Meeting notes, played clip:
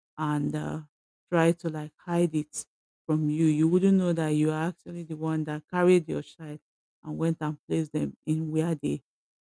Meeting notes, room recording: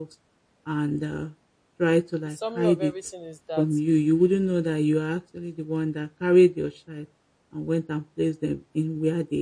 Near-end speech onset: 2.2 s

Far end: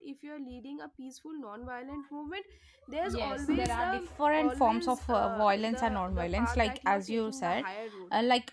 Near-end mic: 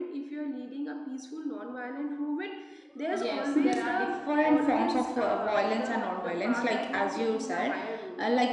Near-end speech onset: none

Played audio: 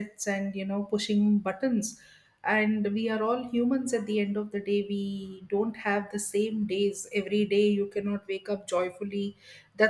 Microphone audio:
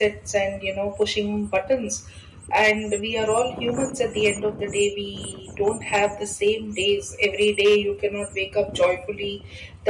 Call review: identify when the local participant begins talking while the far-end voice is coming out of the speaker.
none

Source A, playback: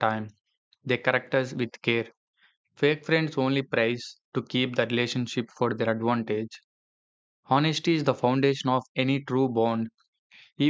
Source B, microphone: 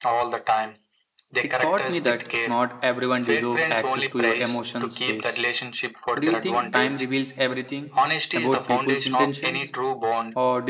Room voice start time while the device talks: 1.4 s

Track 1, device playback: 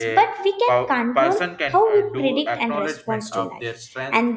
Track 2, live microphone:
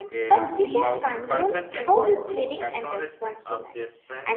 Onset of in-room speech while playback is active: 0.3 s

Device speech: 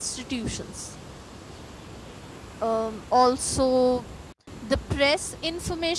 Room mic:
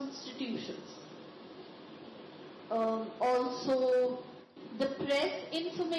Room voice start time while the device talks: none

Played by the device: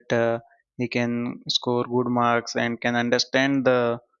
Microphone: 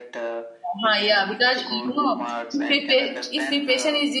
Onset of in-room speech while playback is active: 0.6 s

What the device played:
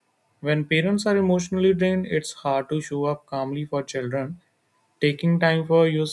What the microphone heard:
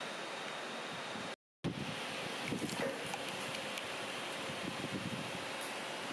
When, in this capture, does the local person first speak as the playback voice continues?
none

